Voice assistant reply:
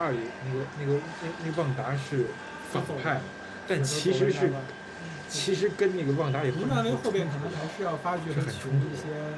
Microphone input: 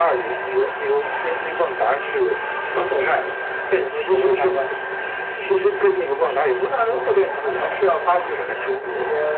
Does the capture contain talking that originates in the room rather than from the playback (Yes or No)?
No